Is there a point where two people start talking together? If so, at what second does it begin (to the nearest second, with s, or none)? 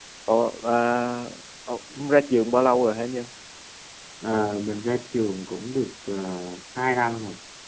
none